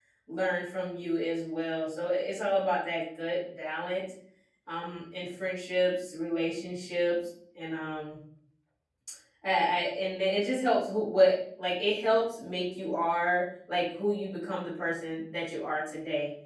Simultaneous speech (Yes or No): No